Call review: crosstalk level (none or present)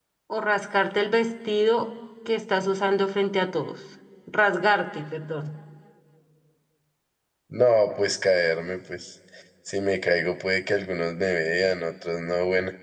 none